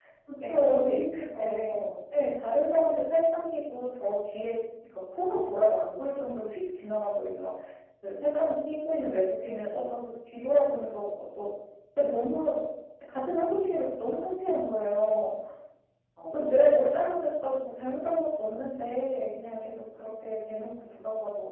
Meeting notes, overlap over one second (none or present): present